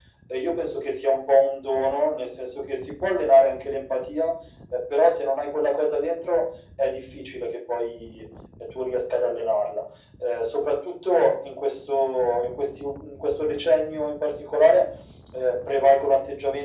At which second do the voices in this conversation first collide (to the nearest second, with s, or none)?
none